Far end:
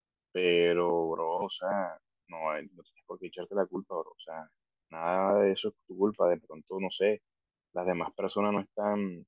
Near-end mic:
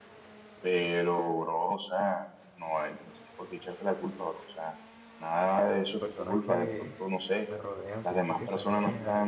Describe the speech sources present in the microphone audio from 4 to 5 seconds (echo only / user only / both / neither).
echo only